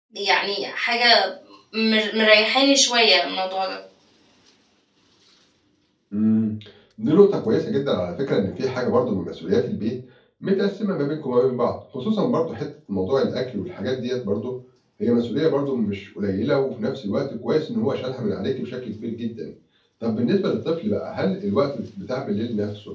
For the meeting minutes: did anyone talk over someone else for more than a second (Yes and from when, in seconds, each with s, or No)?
No